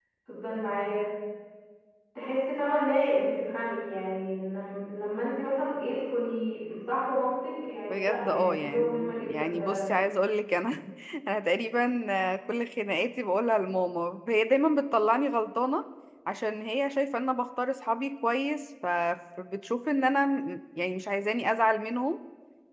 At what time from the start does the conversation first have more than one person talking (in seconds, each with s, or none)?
7.9 s